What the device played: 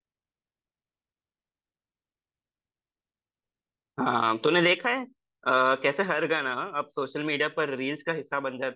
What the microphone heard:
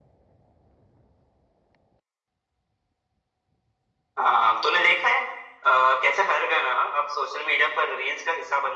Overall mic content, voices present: echo only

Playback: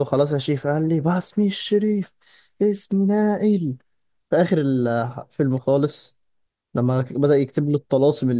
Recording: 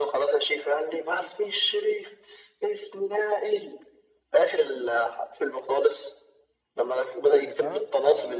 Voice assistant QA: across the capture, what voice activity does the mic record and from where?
both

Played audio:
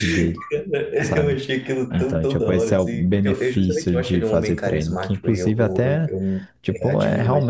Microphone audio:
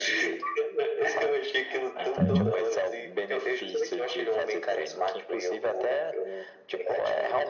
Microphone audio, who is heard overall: both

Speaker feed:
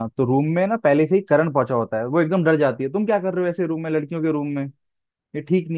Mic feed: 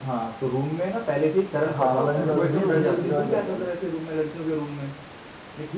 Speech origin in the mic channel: both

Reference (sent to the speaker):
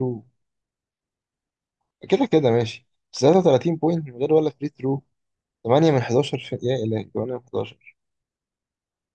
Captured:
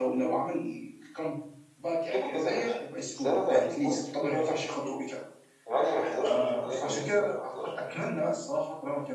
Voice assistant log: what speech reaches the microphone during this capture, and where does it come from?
both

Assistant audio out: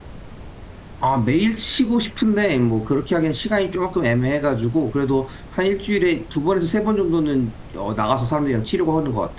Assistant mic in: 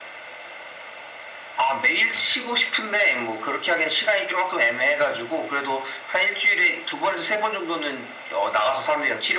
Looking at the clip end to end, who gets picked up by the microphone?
echo only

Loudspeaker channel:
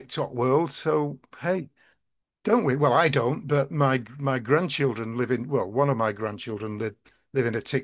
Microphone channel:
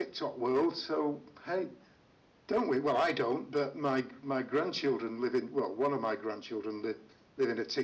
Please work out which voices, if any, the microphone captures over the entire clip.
echo only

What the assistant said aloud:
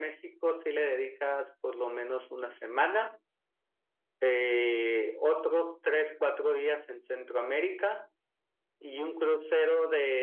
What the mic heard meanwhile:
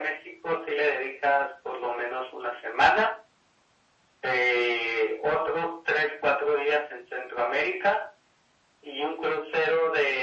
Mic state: echo only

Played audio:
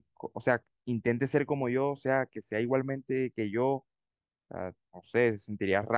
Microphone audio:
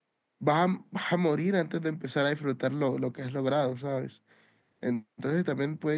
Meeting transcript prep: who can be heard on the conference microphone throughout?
user only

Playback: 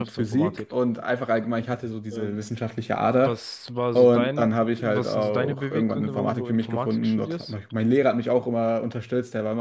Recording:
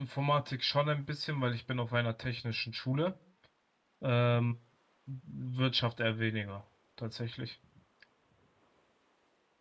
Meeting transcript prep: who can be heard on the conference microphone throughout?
user only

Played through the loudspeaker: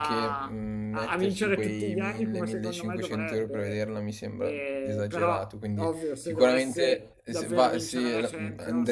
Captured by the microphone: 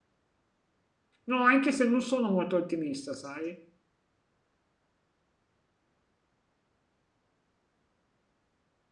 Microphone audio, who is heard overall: user only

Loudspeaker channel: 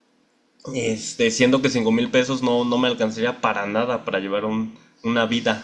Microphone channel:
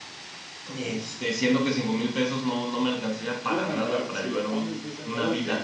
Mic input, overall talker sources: both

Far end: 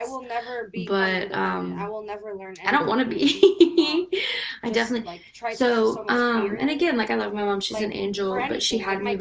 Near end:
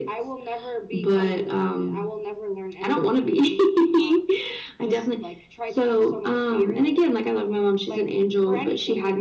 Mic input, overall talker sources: echo only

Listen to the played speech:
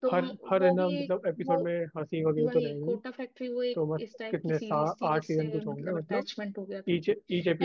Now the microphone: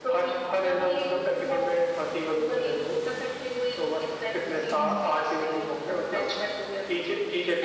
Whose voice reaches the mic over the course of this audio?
both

